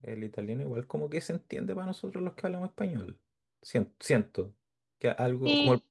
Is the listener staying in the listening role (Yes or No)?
Yes